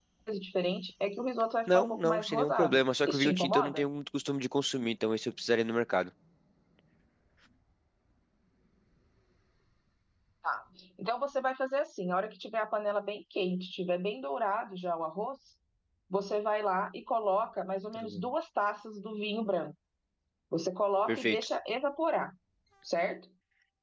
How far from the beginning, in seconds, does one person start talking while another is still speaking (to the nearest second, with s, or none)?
2 s